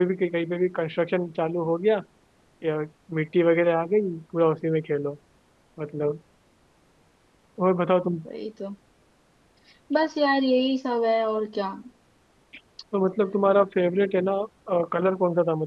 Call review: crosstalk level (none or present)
none